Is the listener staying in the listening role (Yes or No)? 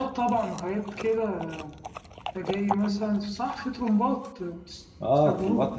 No